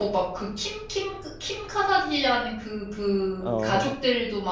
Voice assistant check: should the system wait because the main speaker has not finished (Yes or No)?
Yes